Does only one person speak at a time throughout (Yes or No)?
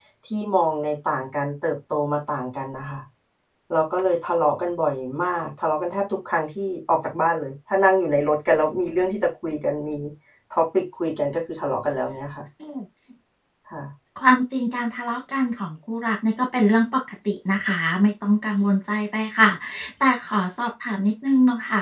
Yes